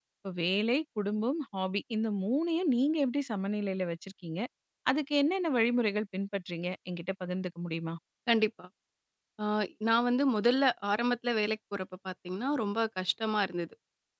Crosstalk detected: No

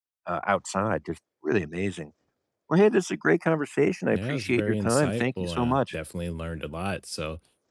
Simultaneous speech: Yes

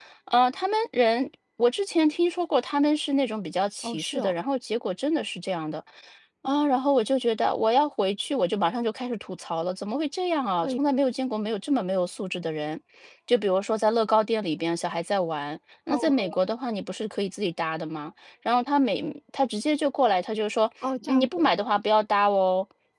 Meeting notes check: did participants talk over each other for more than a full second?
No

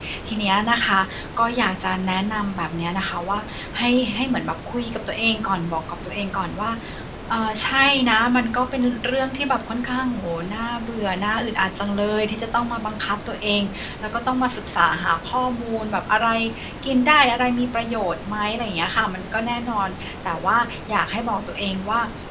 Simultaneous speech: No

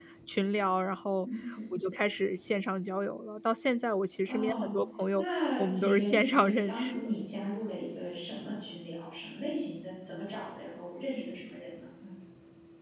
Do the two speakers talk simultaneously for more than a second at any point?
Yes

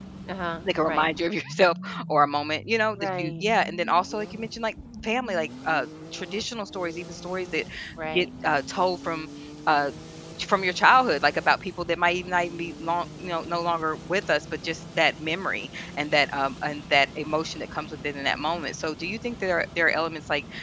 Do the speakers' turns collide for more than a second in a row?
No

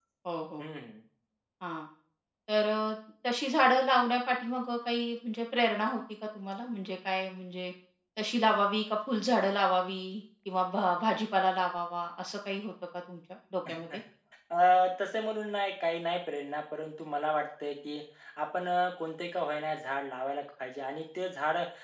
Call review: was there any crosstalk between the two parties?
No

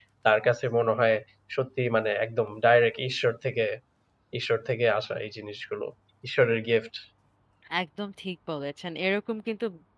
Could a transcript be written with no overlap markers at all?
Yes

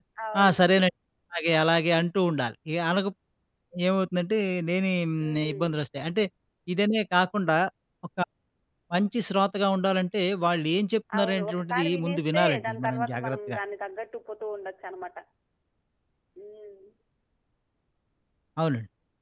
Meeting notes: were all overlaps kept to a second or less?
No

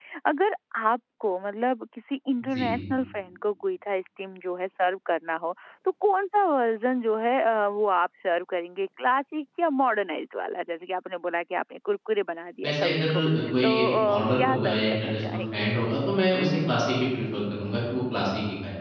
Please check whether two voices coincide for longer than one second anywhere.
Yes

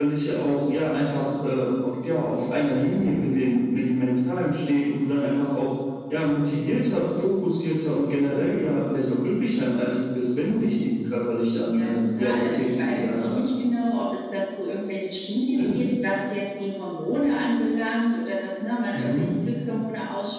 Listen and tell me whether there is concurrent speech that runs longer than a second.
Yes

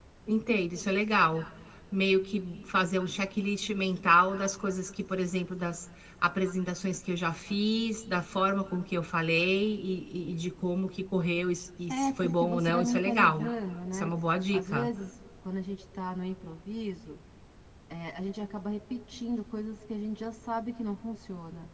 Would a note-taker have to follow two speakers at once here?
Yes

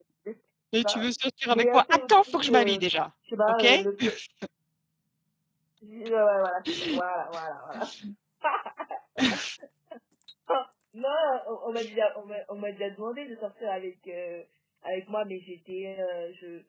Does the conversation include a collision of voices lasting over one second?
Yes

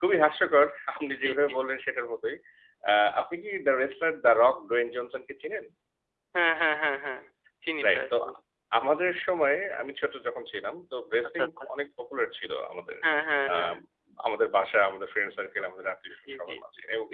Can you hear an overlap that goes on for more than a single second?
No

